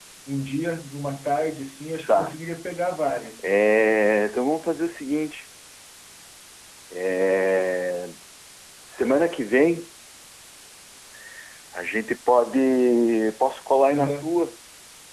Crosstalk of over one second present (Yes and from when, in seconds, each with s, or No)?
No